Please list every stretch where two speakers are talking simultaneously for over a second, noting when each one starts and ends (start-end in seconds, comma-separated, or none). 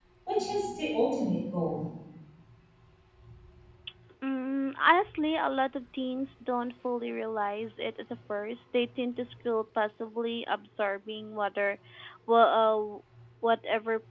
none